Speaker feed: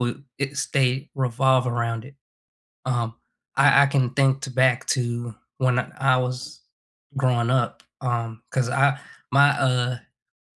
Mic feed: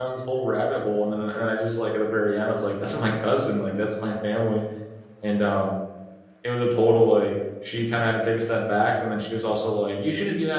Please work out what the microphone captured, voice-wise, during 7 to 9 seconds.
user only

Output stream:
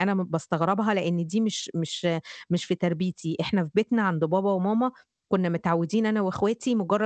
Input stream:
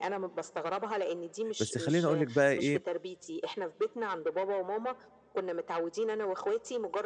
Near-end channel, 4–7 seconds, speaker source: echo only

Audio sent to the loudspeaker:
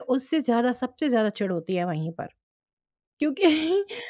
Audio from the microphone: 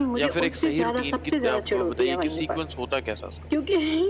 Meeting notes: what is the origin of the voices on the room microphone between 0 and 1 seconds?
both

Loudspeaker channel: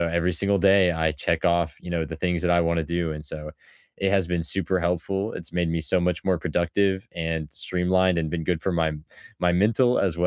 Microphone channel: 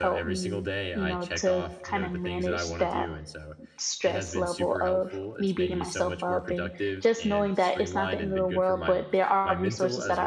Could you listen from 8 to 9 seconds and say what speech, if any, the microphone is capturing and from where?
both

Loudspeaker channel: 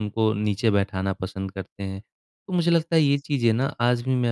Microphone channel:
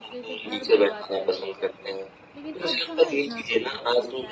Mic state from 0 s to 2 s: both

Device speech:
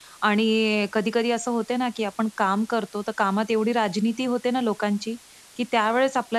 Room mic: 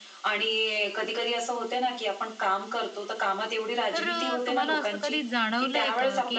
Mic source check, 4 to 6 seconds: both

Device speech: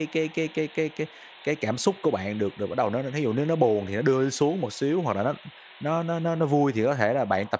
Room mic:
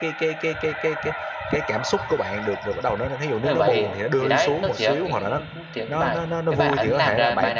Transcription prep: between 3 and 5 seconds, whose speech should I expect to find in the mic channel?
both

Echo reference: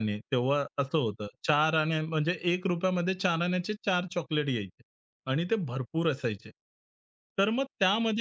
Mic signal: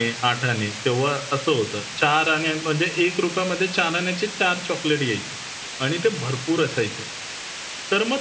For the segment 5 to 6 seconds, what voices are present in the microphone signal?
echo only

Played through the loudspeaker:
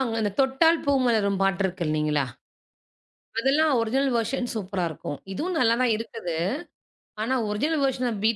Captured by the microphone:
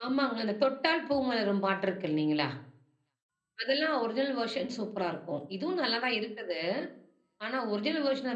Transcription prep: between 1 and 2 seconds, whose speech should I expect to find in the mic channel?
echo only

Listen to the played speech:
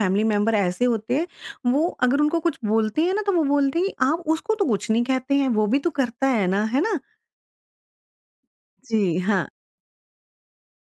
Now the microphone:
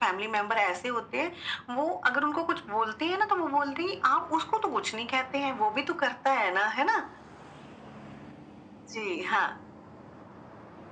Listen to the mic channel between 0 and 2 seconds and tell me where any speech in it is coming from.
echo only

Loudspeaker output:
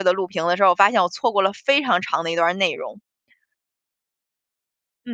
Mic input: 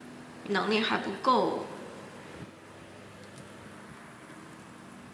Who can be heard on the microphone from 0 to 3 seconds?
user only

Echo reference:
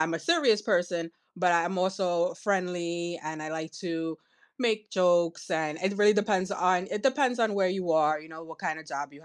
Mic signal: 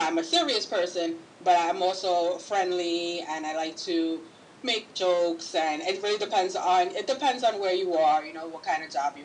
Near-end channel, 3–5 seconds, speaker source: echo only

